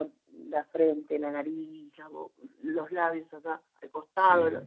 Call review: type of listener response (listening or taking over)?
taking over